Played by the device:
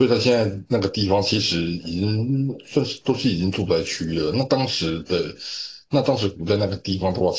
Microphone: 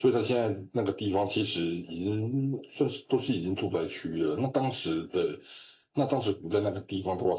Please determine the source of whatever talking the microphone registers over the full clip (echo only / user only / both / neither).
echo only